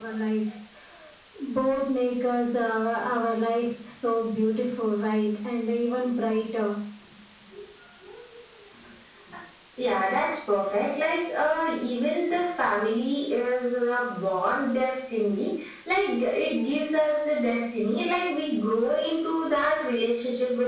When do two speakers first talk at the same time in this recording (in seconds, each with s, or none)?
none